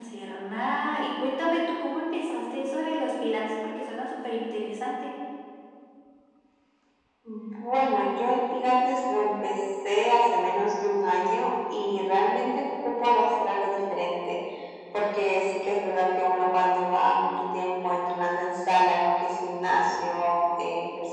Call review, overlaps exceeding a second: none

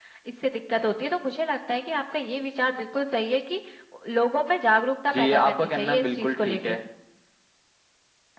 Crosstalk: present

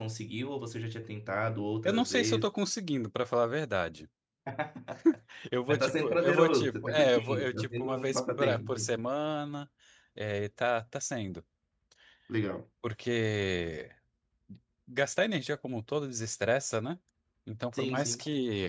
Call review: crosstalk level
present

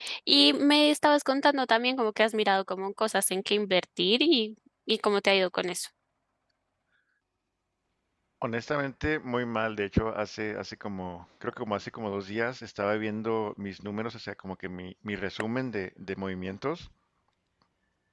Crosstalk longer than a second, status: none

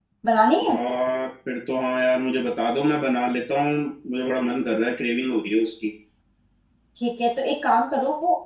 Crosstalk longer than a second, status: none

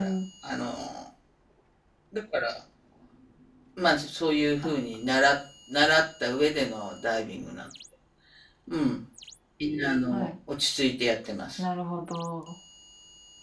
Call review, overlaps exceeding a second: none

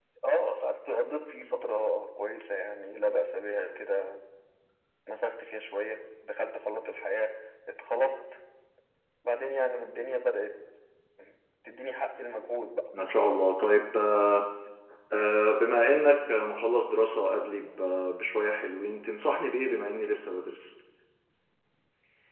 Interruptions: none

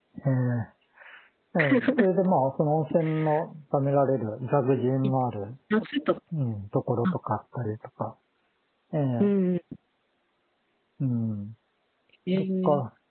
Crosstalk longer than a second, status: none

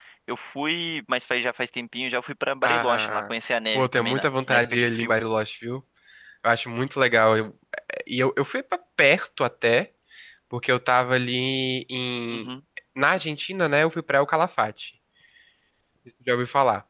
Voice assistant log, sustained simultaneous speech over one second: present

